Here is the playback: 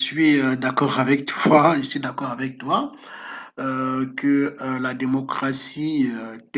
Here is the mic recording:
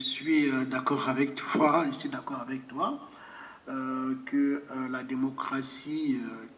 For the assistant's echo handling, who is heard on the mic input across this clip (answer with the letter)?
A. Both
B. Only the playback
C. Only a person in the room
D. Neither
B